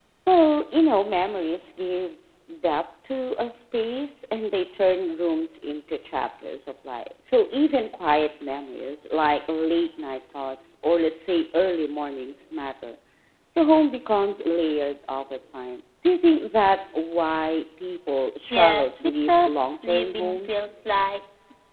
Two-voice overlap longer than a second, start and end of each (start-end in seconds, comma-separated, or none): 18.5-20.6